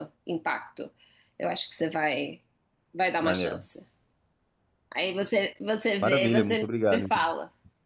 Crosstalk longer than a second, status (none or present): present